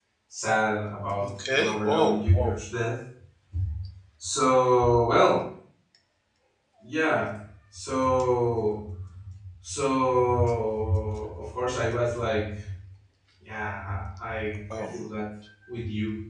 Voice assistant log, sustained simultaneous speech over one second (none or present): present